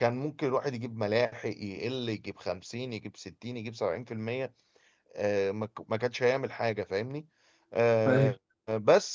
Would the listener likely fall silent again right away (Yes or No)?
Yes